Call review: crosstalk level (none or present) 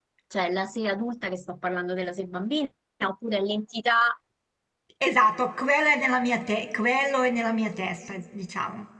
none